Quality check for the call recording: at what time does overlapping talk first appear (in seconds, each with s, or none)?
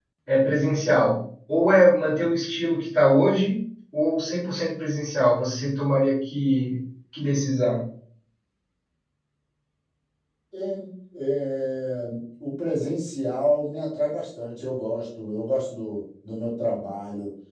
none